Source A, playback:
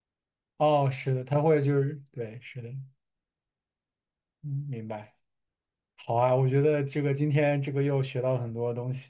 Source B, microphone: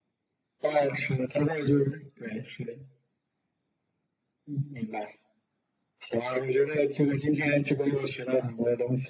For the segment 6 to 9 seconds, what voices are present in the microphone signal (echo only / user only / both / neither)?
echo only